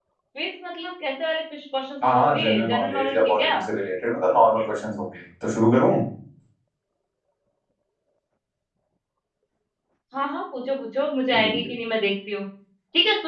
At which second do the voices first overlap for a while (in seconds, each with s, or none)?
2.1 s